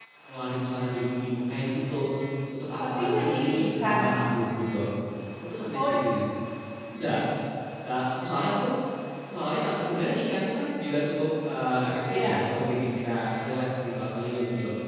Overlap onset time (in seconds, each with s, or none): 2.8 s